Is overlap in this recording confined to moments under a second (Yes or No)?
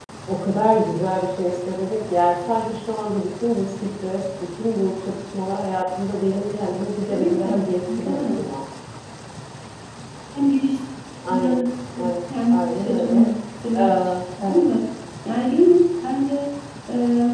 No